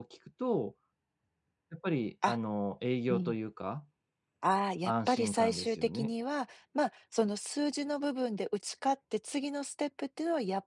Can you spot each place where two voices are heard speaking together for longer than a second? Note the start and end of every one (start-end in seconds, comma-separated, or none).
4.9-6.1